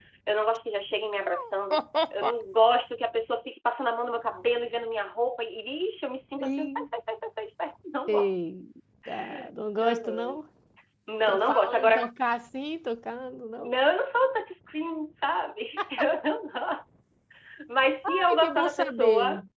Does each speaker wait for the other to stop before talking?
No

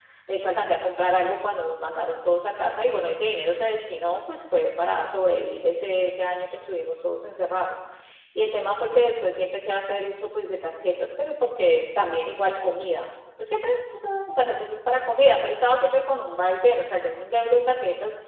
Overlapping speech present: No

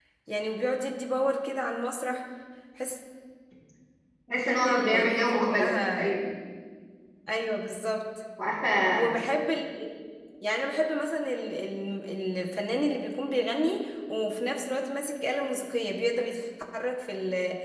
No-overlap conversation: No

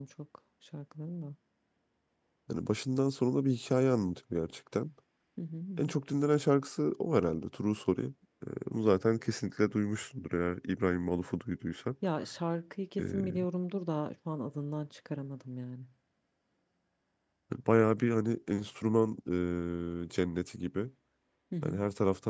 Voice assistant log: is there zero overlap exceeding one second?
Yes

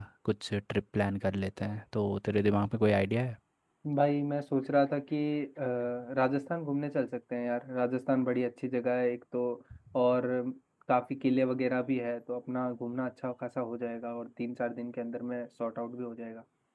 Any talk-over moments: No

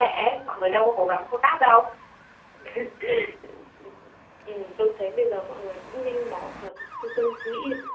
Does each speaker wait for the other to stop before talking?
Yes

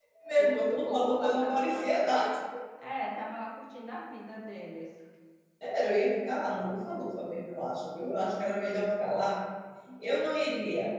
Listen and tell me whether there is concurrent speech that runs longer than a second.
Yes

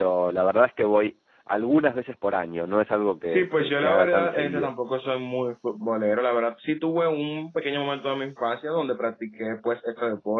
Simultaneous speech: Yes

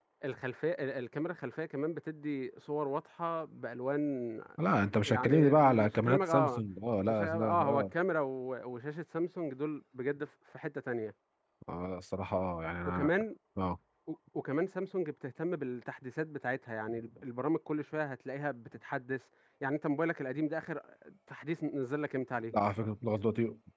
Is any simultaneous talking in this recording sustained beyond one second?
Yes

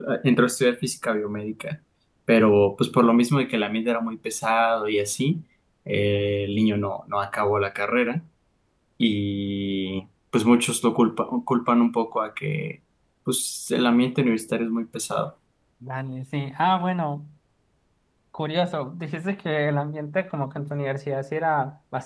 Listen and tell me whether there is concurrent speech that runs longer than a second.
No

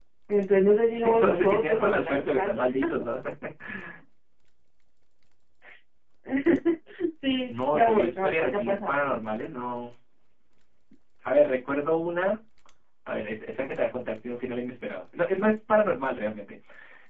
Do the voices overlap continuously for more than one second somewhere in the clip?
Yes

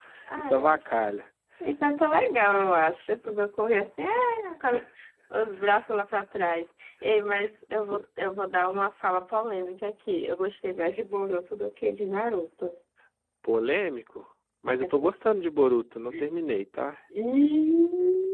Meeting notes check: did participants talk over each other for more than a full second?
No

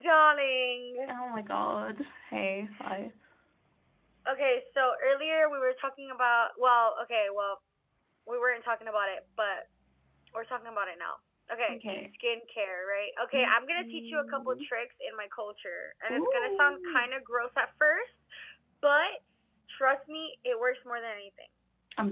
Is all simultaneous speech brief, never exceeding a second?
No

